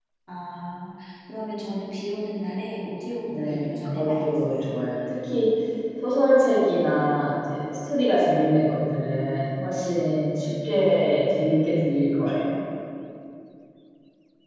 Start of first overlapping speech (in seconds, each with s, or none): 3.4 s